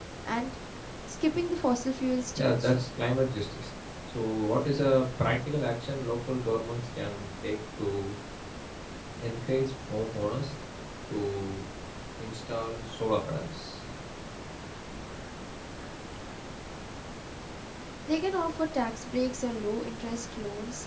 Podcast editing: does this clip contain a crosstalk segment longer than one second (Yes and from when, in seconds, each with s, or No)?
No